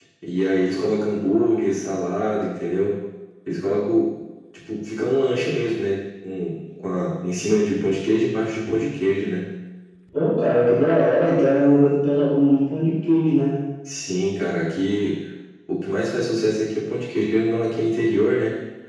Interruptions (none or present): none